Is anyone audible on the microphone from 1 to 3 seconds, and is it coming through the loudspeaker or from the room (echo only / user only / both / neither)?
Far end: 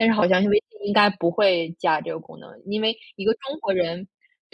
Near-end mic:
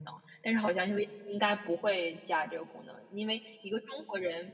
echo only